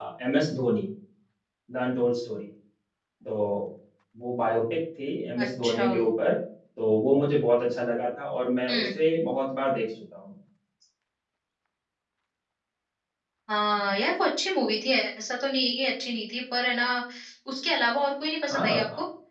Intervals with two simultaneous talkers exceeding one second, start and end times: none

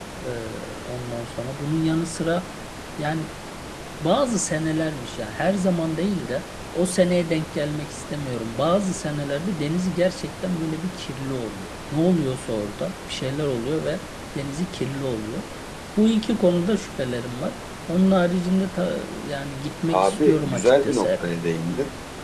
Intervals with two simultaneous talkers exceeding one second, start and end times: 19.9-21.4

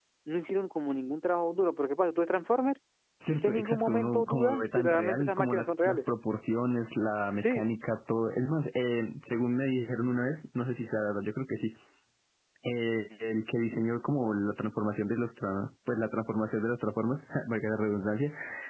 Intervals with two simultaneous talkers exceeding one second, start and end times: 3.3-6.0

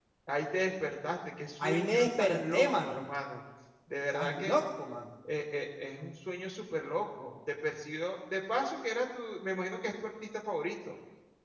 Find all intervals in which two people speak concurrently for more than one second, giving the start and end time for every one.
1.6-3.0

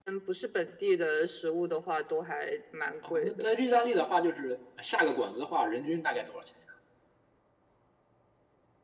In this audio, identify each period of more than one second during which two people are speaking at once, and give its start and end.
none

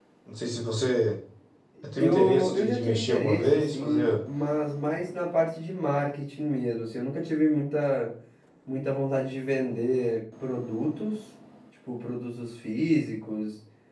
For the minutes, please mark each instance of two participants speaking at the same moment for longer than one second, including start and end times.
2.0-4.1

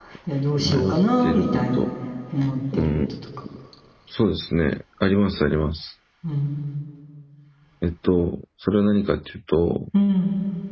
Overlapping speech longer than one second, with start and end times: 0.6-1.9

